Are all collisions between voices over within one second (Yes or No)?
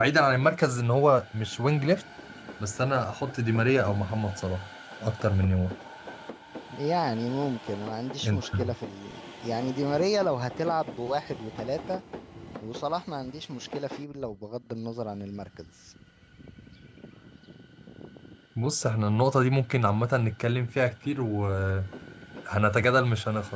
Yes